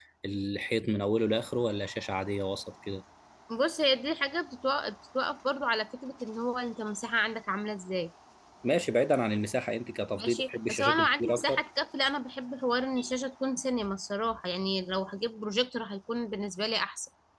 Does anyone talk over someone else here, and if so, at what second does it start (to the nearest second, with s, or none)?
10 s